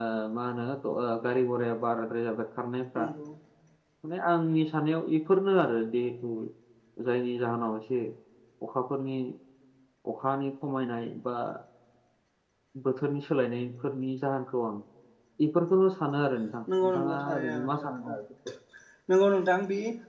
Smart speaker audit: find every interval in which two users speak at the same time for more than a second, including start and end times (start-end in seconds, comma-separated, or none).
16.8-18.1